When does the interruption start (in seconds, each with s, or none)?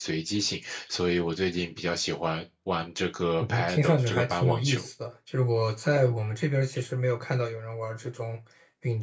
3.4 s